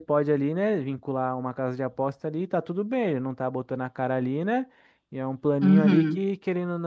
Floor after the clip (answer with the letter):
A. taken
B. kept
B